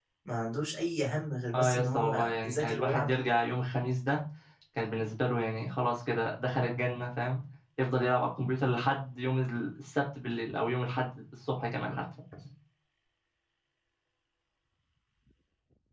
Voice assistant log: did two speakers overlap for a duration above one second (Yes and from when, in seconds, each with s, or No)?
Yes, from 1.5 s